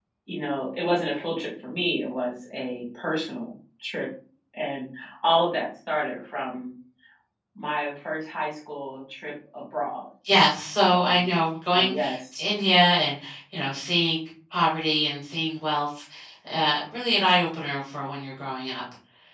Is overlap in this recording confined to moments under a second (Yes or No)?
Yes